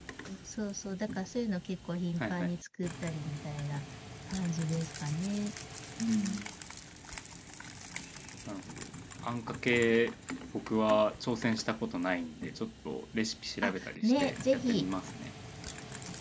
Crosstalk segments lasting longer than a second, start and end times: 13.6-14.9

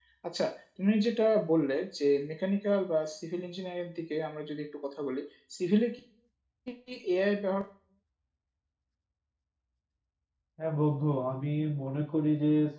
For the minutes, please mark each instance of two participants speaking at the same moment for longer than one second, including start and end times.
none

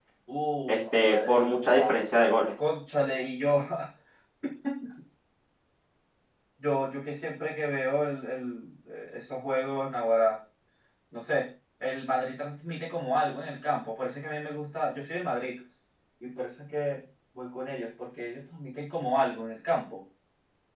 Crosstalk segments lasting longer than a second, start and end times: 0.7-1.9

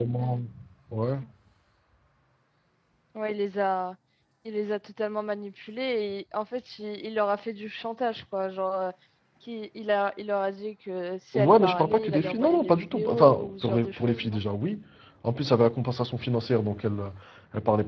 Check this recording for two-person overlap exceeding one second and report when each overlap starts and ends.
11.3-14.4

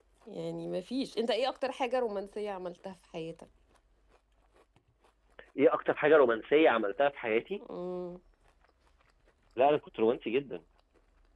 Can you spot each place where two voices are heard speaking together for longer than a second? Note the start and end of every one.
none

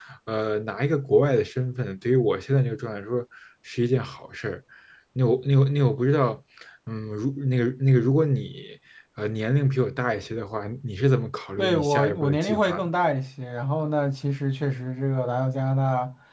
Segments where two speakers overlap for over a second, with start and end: 11.6-12.9

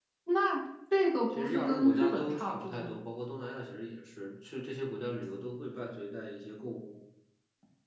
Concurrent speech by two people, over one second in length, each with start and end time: 1.3-2.9

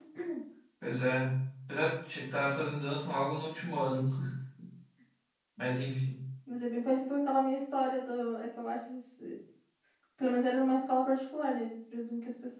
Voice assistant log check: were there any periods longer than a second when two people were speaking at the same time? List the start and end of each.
none

